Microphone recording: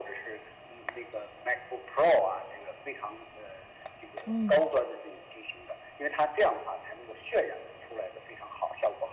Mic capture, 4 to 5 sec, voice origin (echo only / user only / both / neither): both